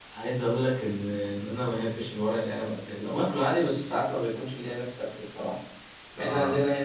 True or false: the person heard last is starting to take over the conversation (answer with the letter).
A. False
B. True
A